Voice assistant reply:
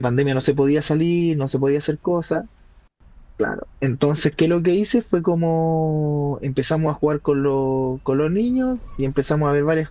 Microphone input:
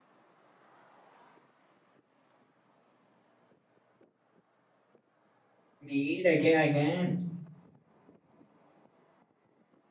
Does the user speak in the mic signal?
Yes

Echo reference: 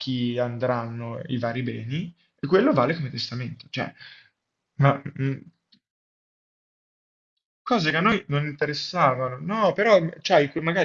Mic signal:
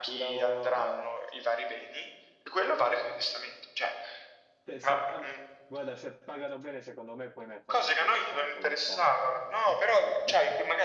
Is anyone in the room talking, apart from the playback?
Yes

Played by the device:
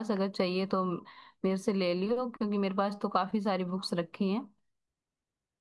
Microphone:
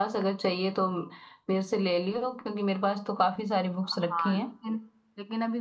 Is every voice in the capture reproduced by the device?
No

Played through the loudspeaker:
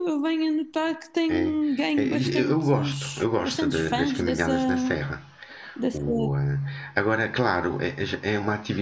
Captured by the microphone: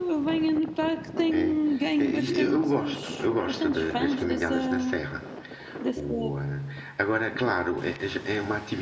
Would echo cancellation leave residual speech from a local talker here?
No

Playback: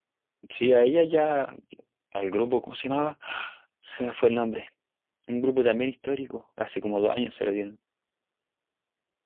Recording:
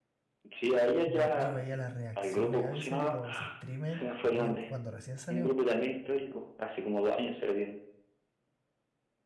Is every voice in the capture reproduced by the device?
No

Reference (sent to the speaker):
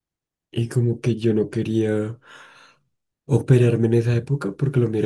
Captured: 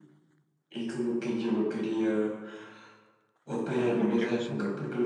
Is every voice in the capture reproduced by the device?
No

